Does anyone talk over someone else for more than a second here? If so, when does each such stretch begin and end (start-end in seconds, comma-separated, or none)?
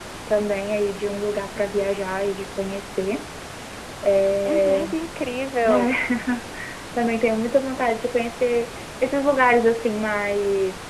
none